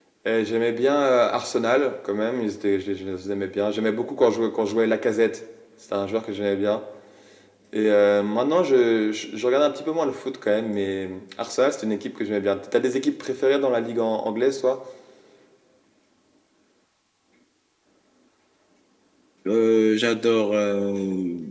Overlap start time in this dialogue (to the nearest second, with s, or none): none